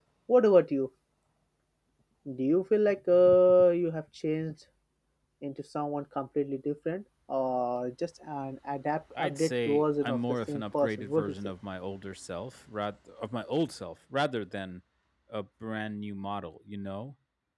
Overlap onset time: 9.2 s

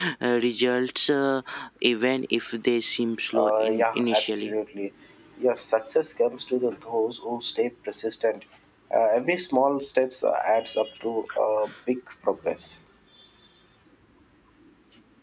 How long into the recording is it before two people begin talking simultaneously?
3.2 s

